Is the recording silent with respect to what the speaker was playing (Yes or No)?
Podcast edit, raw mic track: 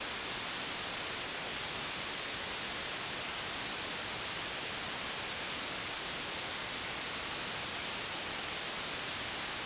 Yes